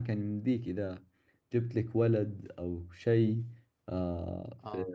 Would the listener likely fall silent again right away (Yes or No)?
Yes